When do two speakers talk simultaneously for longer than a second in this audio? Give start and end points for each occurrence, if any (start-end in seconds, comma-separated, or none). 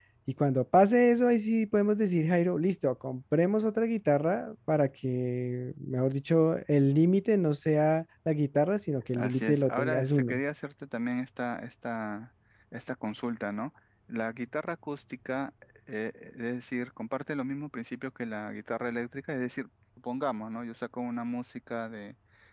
9.2-10.4